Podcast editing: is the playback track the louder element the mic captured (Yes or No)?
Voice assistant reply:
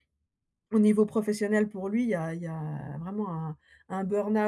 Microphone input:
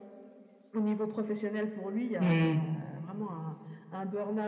No